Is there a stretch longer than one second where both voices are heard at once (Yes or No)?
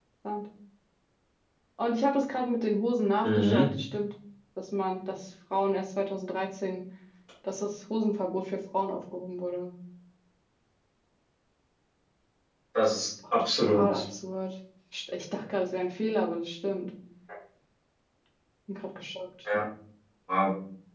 Yes